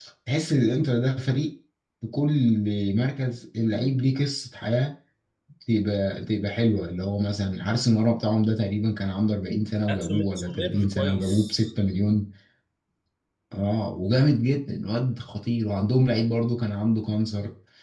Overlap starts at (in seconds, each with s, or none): 9.9 s